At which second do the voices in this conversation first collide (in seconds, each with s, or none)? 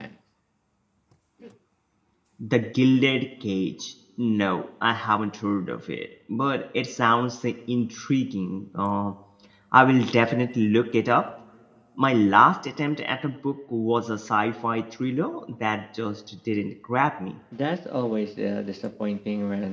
none